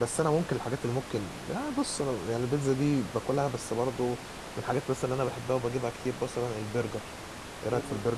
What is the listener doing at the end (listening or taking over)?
taking over